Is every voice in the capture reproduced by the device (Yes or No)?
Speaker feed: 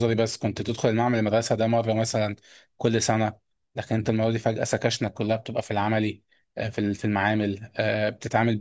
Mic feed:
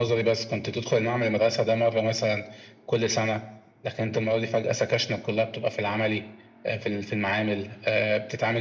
Yes